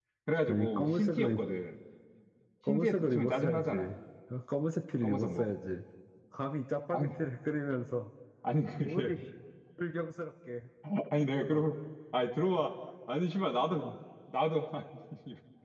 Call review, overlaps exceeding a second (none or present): present